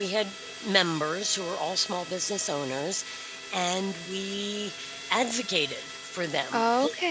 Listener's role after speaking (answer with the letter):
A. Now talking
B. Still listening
B